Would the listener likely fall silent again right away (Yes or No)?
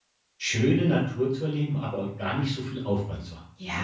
No